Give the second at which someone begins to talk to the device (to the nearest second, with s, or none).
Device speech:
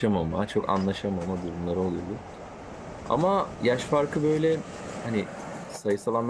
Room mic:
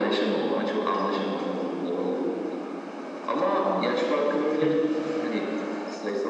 4 s